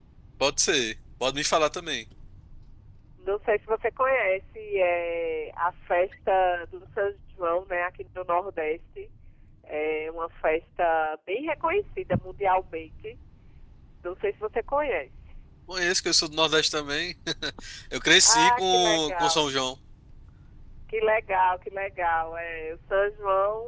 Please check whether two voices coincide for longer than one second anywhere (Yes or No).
Yes